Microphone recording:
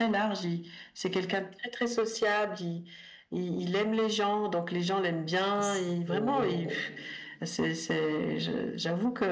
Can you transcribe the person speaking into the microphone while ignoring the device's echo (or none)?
assez, heu,